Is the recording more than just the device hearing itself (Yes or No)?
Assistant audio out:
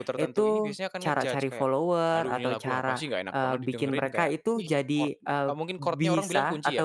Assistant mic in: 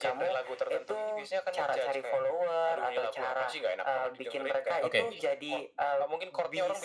Yes